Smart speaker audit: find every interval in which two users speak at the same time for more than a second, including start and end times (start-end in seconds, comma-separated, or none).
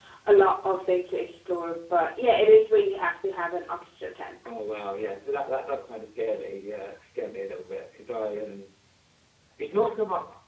none